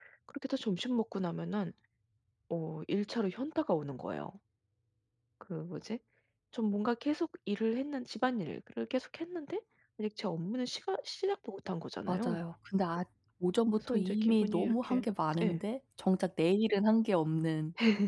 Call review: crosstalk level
present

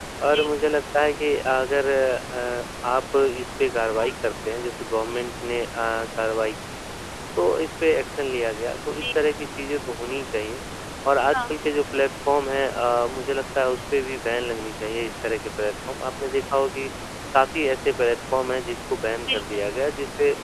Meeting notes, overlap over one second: none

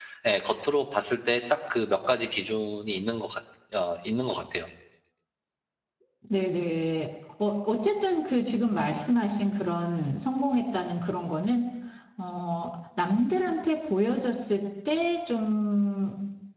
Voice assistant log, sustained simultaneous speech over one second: none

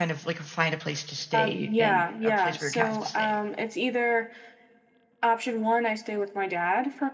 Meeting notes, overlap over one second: present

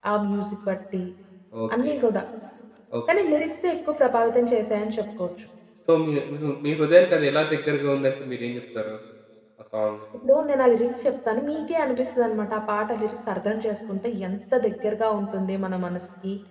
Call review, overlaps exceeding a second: none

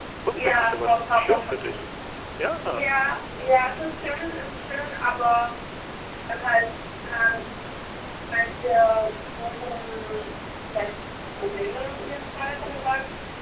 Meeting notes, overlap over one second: present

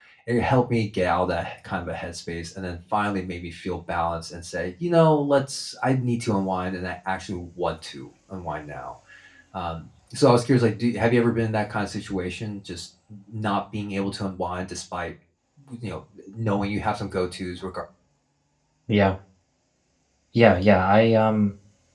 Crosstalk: none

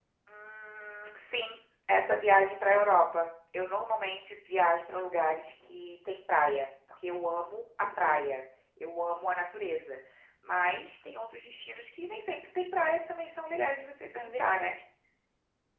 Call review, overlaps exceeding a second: none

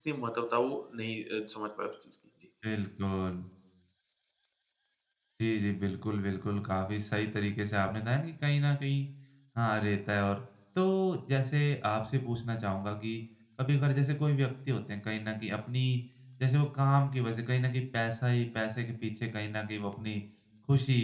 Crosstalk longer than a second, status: none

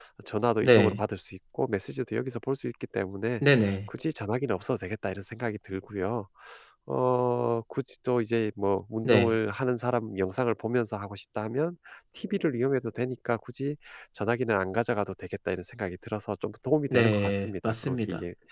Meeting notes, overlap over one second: present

